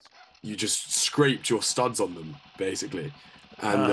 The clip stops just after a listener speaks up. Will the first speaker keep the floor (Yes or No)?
Yes